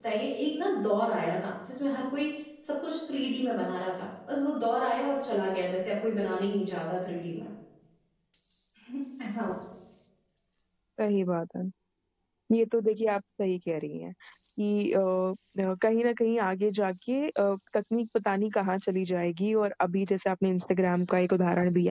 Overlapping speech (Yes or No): No